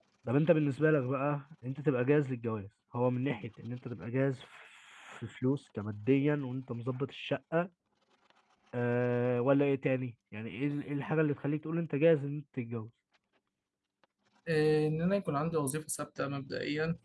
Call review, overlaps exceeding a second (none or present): none